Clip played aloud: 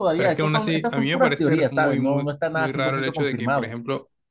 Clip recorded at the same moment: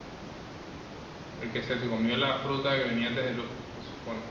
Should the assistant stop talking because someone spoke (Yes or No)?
Yes